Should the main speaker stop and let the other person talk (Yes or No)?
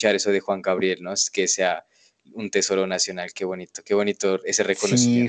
Yes